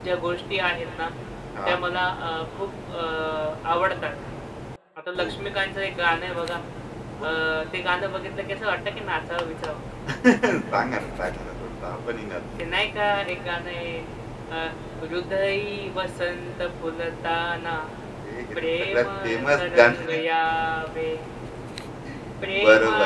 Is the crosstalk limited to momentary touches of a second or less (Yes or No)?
No